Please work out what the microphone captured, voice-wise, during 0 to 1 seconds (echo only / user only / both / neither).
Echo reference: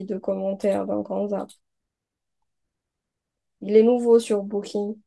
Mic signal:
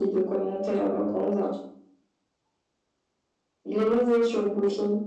echo only